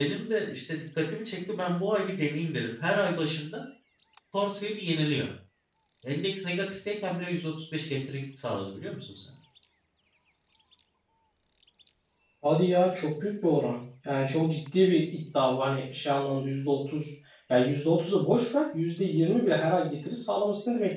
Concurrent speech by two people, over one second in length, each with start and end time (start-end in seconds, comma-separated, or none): none